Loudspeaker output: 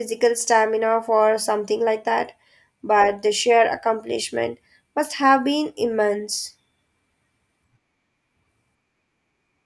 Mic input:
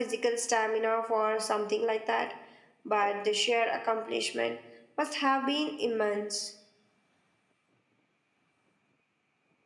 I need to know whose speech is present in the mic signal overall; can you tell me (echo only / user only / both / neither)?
echo only